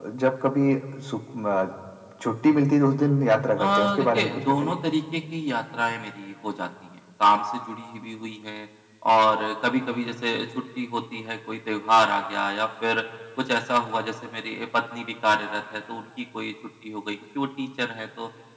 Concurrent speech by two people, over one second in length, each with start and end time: 3.6-4.8

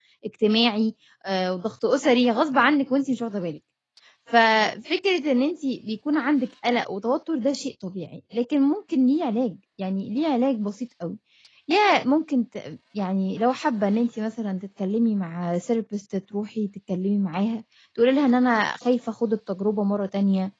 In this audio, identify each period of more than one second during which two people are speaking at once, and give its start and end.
none

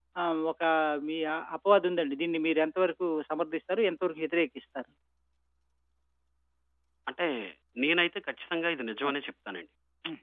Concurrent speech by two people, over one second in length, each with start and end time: none

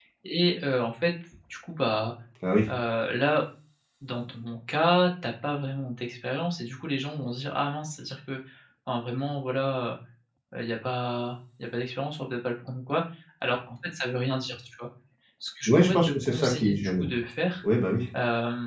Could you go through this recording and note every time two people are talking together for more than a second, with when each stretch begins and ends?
15.7-17.1

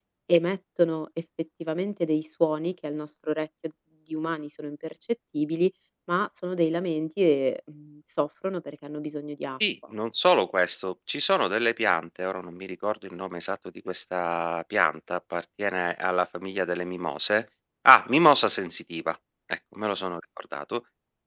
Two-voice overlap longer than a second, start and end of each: none

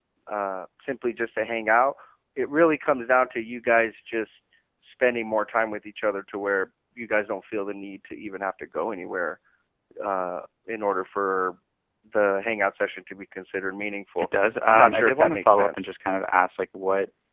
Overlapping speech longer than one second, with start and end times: 14.7-15.9

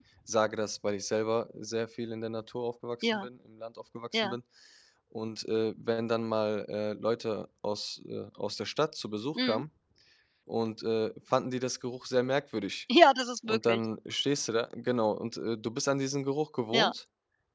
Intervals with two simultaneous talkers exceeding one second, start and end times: none

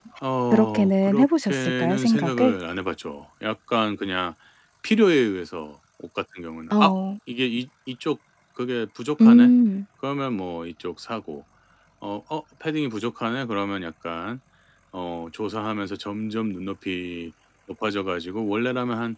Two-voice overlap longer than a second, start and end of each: 0.5-2.5

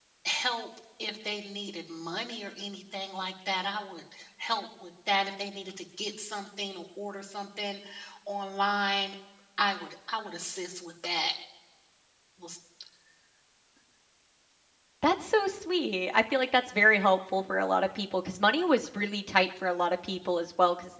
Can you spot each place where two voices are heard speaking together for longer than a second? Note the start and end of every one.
none

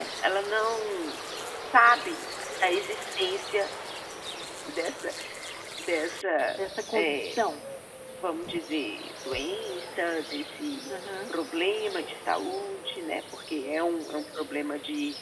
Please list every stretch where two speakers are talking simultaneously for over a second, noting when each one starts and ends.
none

